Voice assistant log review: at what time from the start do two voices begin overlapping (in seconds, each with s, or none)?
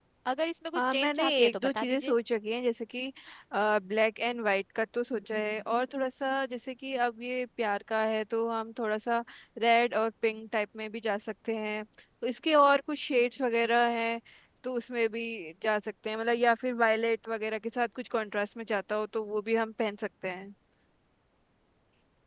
0.8 s